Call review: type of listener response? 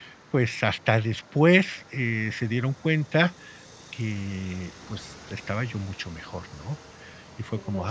listening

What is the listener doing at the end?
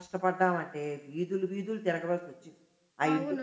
taking over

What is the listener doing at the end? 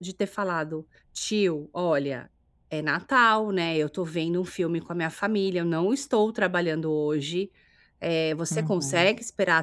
listening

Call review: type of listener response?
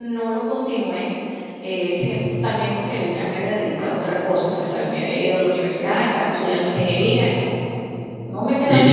taking over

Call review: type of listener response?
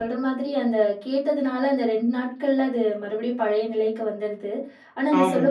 listening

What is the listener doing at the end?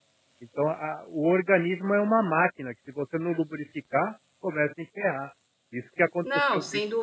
taking over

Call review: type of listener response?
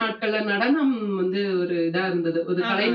listening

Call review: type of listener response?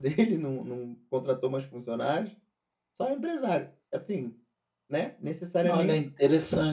taking over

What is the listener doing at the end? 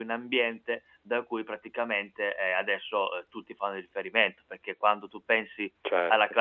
listening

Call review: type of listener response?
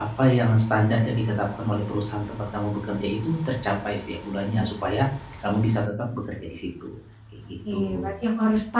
taking over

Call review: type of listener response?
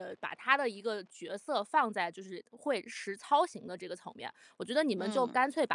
listening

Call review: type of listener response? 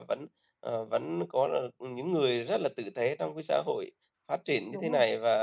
listening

